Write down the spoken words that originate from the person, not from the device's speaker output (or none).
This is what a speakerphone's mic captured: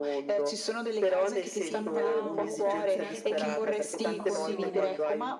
pietà o per attirare compres compassione,